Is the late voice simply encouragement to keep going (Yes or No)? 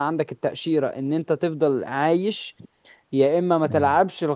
Yes